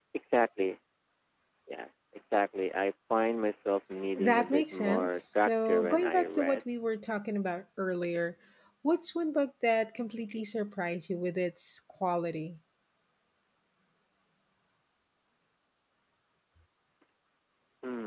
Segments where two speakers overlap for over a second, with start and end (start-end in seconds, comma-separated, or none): 4.2-6.6